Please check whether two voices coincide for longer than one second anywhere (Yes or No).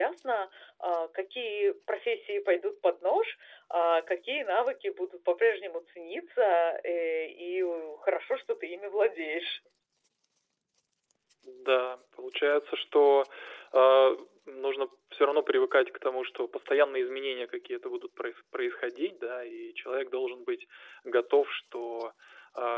No